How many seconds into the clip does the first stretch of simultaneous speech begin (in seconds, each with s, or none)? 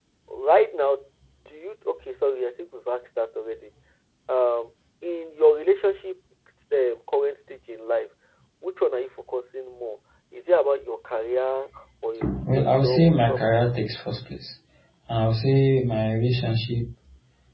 12.2 s